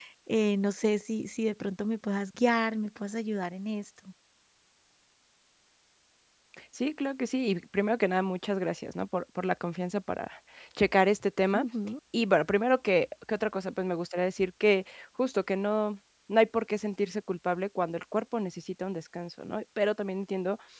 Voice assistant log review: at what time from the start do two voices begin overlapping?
none

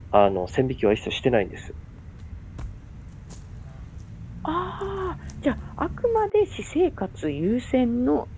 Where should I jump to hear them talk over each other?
none

